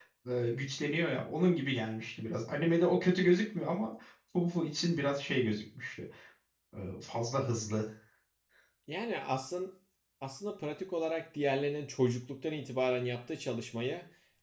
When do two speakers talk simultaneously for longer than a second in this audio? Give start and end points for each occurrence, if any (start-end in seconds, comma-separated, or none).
none